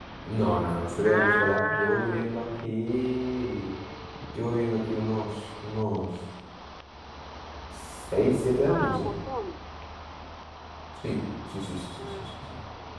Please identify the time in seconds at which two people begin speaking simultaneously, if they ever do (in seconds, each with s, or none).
1.0 s